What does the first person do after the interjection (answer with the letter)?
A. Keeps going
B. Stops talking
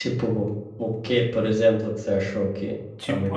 B